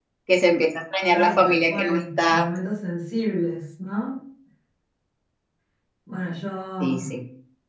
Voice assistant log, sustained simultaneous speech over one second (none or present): present